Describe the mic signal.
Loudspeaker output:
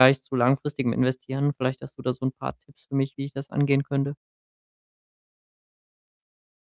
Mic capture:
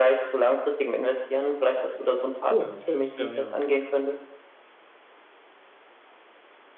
both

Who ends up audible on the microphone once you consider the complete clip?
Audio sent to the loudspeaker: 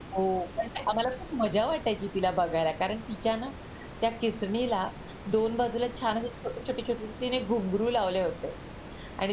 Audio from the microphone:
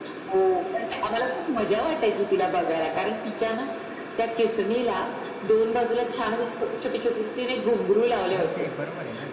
both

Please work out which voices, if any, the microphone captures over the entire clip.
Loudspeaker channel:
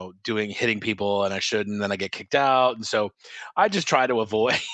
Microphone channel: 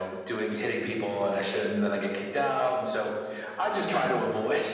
echo only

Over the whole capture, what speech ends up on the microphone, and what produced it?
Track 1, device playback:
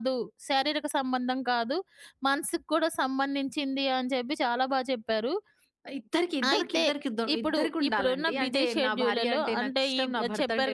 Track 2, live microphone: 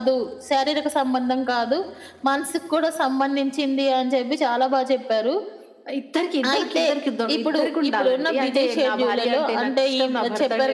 echo only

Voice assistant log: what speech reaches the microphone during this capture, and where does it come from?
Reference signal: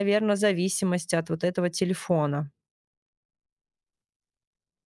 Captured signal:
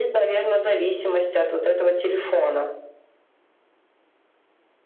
echo only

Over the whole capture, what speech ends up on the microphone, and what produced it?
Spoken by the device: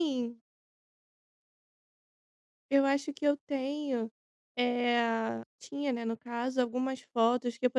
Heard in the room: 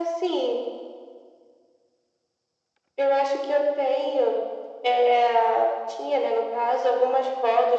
echo only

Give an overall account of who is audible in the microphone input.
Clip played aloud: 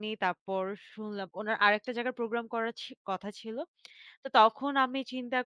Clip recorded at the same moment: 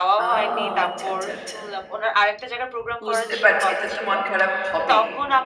both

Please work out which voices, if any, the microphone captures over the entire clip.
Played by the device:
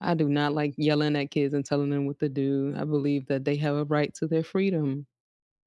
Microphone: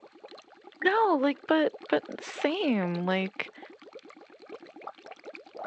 user only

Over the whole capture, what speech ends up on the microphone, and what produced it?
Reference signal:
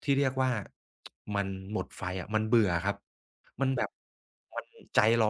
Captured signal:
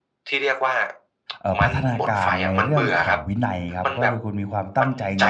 both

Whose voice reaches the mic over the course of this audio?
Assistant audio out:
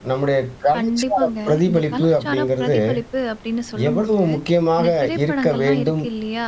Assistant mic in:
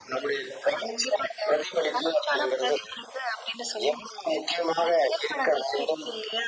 echo only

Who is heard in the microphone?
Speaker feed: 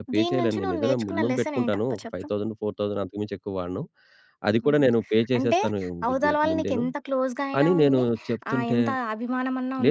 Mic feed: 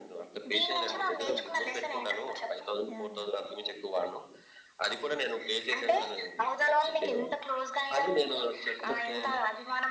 both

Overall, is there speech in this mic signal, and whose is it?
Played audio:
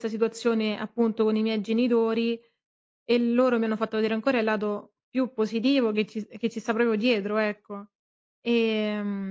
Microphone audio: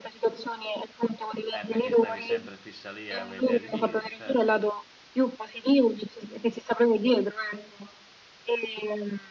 both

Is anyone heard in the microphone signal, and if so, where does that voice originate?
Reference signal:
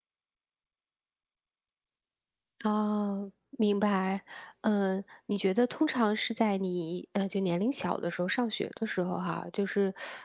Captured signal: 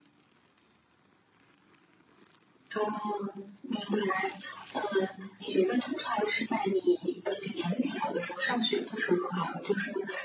echo only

